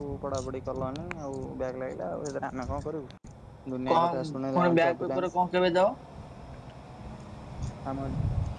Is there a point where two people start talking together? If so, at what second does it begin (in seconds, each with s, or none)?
3.9 s